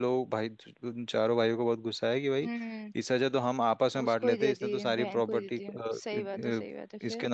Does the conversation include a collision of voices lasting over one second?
Yes, from 4.0 s

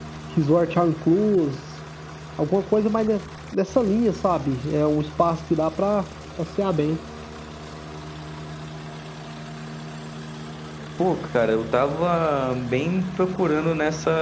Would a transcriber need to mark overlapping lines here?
No

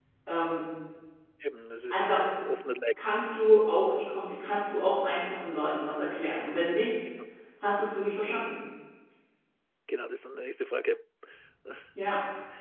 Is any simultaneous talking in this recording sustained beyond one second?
No

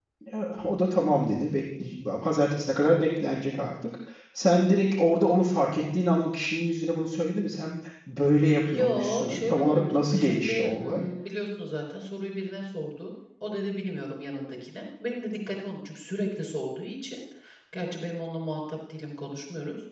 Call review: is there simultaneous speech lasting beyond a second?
Yes, from 8.6 s

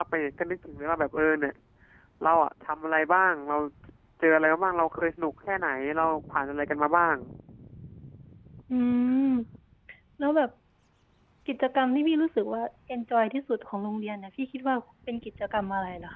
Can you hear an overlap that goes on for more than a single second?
No

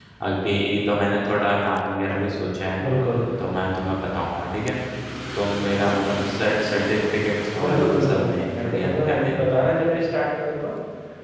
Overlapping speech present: Yes, from 7.6 s

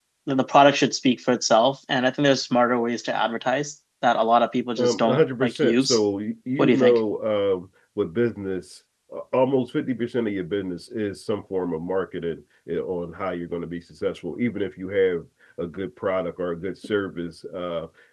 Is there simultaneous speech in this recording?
Yes, from 4.8 s

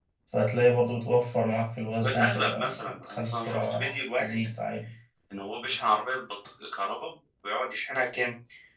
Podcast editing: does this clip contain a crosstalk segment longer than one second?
Yes, from 2.0 s

